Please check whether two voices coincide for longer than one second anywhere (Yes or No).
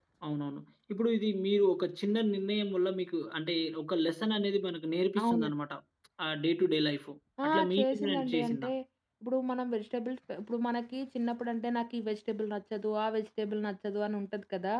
Yes